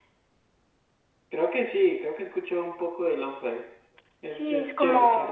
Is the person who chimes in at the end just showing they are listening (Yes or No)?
No